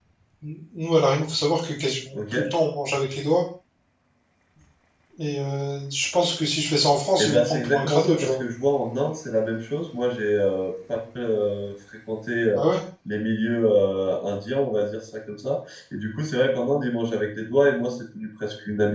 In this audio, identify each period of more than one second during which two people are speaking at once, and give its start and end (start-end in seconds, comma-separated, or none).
7.2-8.4